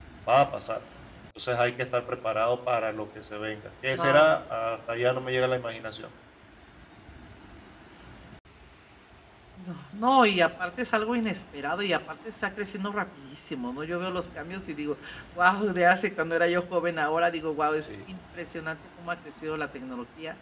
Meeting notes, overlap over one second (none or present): none